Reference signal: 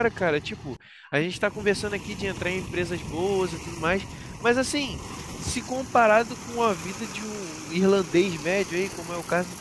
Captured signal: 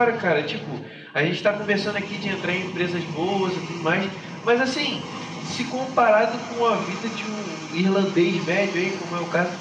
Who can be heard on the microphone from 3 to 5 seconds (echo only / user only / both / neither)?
echo only